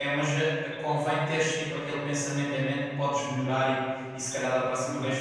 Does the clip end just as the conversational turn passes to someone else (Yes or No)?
No